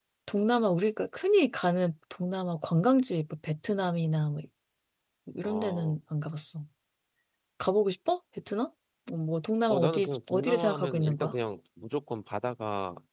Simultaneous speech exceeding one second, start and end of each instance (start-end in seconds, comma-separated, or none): 9.8-11.3